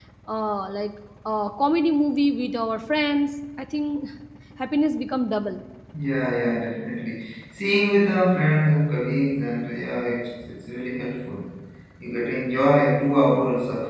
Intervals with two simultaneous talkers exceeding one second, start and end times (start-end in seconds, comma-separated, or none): none